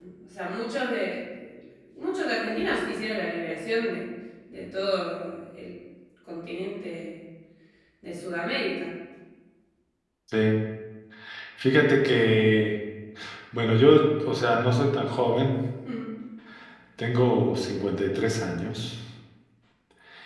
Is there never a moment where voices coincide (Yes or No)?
Yes